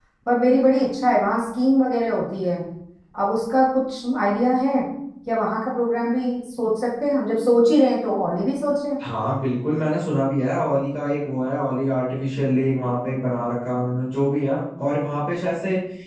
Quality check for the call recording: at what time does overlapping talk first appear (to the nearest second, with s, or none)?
none